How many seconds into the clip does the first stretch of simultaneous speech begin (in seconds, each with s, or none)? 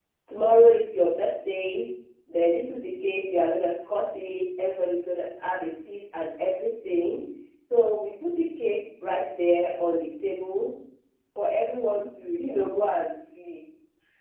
none